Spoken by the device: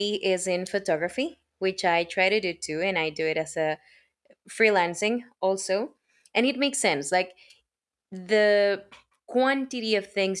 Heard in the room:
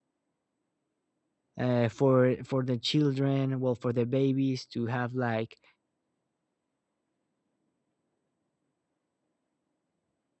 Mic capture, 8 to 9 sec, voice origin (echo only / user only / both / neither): neither